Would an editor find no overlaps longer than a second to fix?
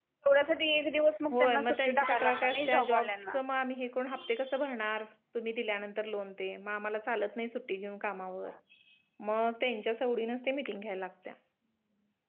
No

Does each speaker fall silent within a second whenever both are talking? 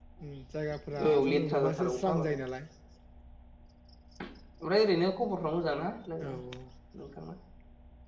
No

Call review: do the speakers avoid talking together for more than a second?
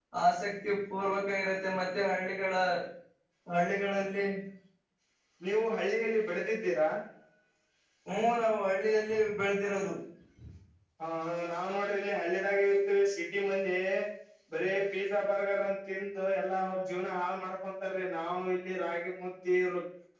Yes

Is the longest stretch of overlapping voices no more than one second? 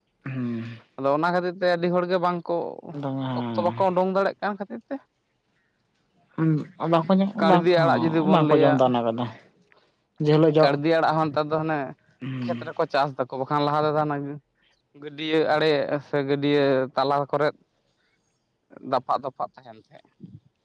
No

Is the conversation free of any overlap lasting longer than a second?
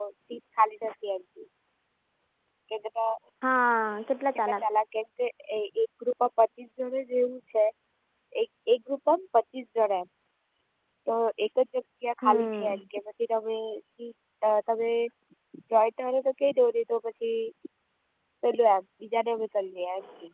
Yes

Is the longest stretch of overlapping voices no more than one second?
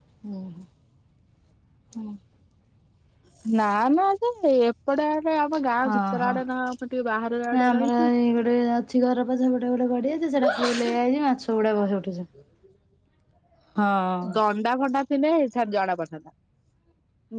Yes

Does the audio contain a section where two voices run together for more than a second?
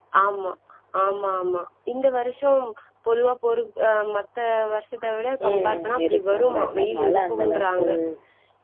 Yes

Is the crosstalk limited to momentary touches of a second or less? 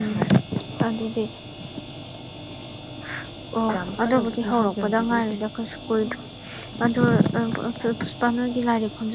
No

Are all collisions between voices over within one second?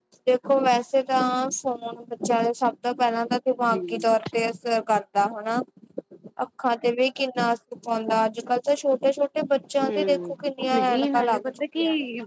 No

